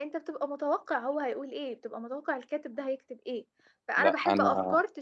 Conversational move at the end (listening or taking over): listening